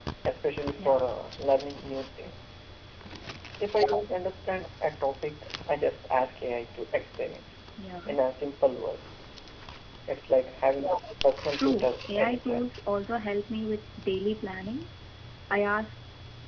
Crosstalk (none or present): present